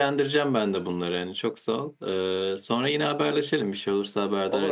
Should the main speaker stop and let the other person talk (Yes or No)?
Yes